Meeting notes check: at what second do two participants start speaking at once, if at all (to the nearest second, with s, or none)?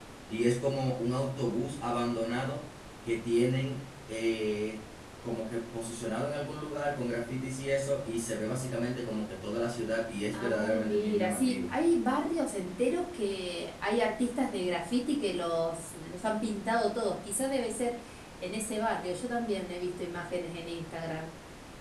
10 s